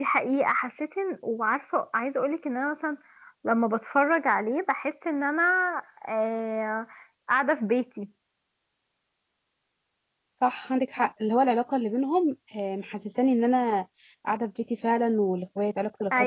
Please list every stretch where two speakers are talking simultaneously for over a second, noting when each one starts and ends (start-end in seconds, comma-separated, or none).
none